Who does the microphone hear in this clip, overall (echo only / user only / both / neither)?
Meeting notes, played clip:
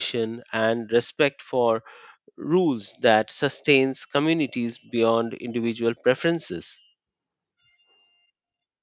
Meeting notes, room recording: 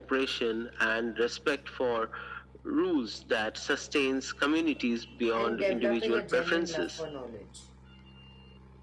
both